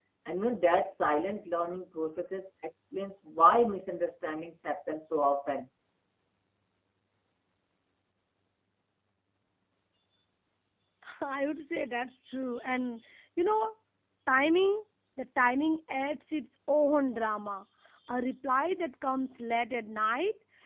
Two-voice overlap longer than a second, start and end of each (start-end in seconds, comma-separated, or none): none